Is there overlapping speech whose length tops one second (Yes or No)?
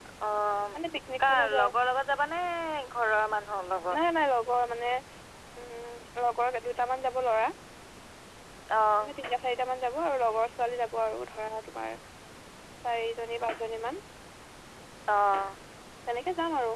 No